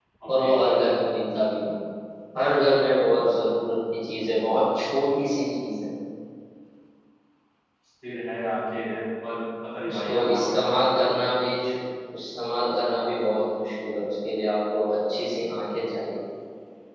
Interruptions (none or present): present